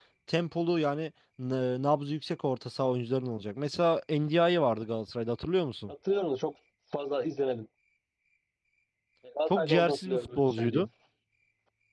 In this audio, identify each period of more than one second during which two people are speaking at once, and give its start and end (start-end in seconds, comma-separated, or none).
9.5-10.9